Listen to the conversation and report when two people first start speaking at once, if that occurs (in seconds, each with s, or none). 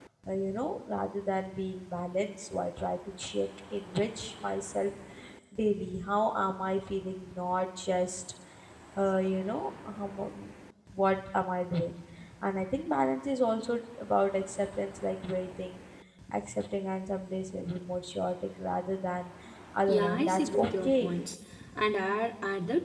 19.9 s